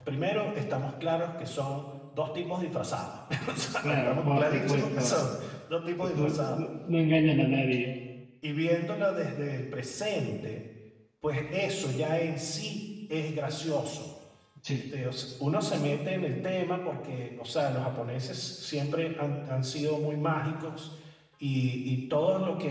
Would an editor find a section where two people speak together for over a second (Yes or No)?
Yes